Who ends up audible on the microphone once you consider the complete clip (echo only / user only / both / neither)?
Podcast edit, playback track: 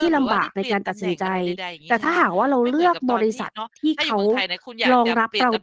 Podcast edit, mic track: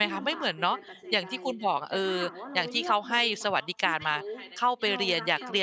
both